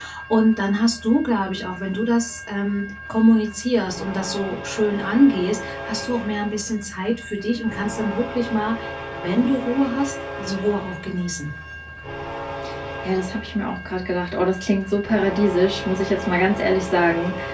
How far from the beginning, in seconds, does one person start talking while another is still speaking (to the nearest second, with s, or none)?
none